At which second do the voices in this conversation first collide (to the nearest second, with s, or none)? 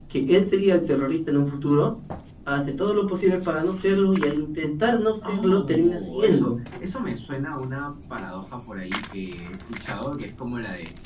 5 s